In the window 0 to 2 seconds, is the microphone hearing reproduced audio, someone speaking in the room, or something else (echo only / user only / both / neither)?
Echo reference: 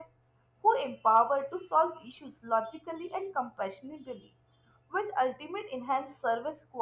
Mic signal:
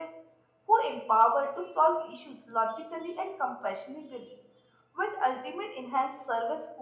echo only